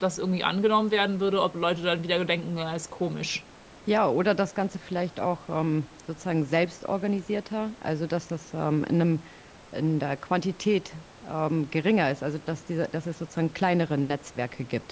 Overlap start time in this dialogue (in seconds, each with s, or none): none